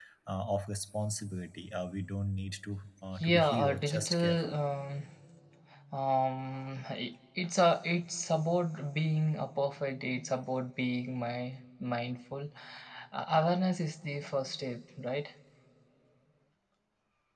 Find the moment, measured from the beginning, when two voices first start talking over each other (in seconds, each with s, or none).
3.2 s